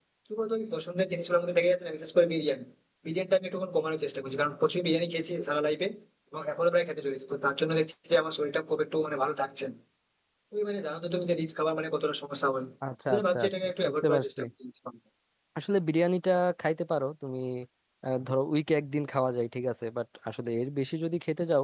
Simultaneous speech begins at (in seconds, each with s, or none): 13.1 s